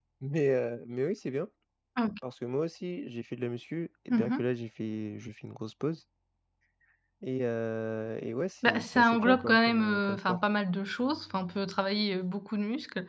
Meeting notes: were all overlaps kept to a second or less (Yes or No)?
No